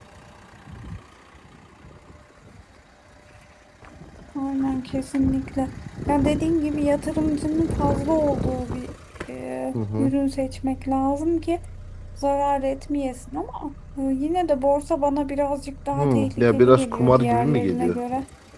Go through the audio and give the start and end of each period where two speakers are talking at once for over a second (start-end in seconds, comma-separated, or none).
15.9-18.0